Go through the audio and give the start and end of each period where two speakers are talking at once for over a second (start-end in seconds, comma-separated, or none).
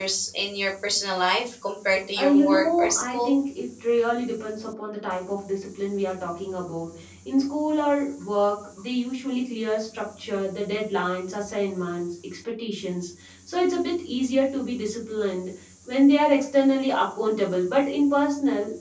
2.2-3.4